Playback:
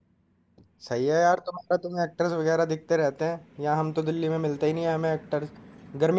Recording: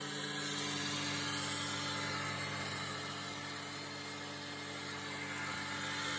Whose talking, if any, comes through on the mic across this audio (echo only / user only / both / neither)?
neither